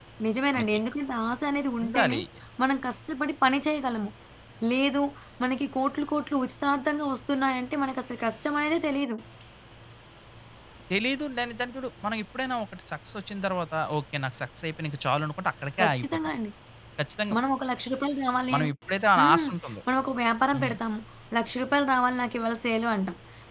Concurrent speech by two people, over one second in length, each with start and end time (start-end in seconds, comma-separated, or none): none